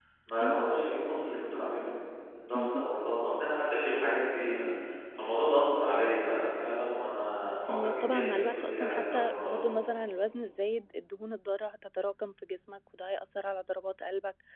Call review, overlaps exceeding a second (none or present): present